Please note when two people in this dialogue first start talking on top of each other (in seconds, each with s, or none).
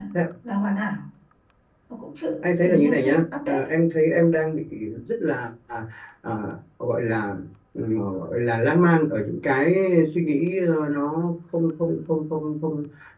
2.4 s